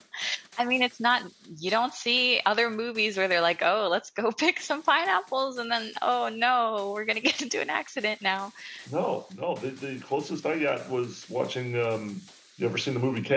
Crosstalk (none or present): none